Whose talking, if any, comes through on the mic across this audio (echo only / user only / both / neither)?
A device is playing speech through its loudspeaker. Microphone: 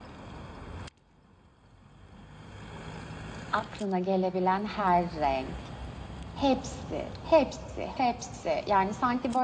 echo only